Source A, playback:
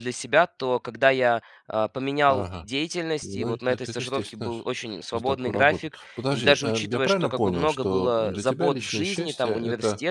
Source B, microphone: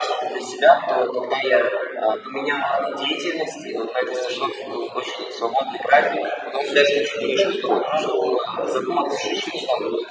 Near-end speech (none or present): none